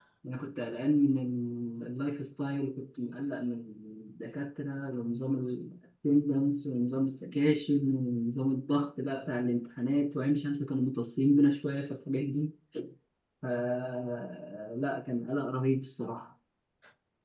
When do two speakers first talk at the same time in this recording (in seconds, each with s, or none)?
none